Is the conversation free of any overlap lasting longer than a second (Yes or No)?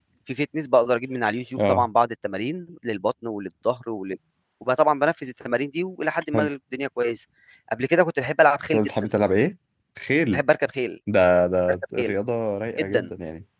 Yes